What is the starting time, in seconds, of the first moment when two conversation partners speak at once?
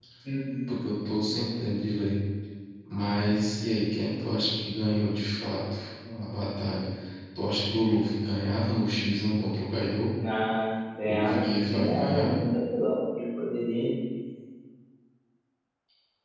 11.0 s

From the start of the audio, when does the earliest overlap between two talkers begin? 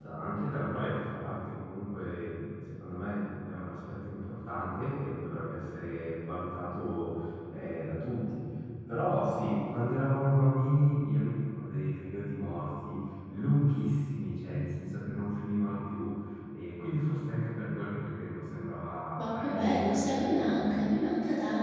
19.2 s

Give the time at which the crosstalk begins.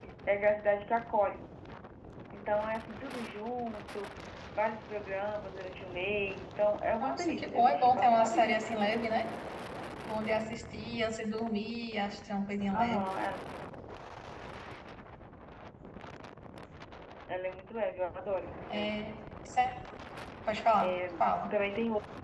7.0 s

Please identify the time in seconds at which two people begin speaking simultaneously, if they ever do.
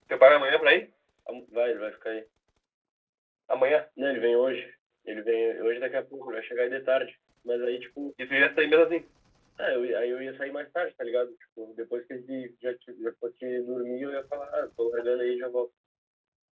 none

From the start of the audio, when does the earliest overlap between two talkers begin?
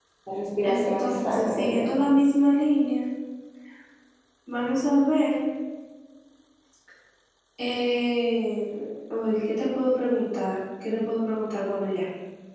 0.6 s

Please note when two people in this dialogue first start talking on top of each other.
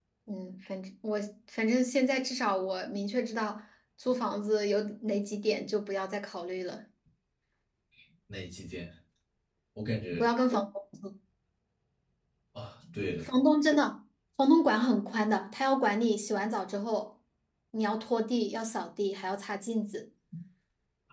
none

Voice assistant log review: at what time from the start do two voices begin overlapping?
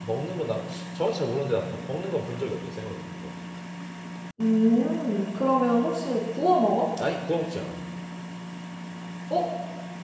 none

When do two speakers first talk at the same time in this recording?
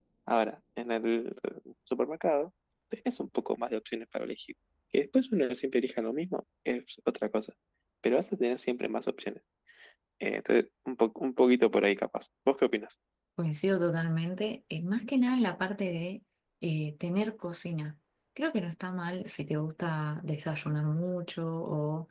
none

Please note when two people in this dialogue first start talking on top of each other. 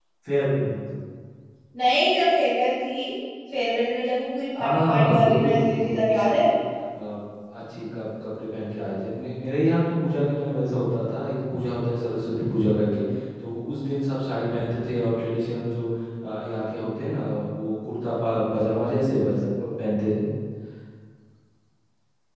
4.6 s

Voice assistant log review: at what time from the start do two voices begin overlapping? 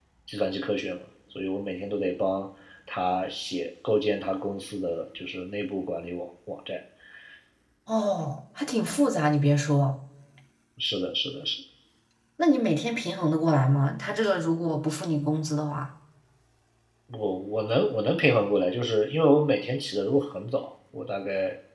none

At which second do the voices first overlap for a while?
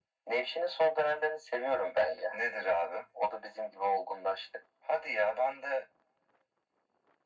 none

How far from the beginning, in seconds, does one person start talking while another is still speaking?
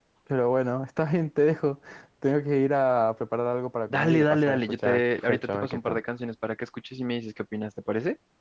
3.9 s

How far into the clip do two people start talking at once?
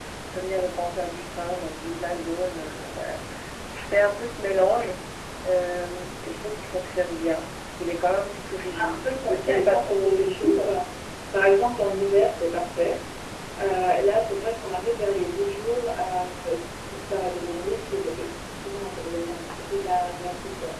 8.7 s

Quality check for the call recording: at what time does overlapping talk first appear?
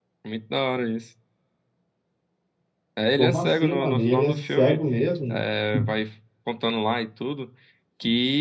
3.2 s

